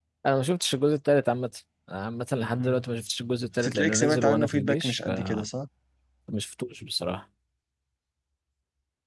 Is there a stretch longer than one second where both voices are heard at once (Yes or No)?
Yes